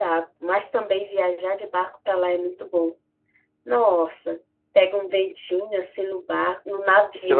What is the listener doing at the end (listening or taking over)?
taking over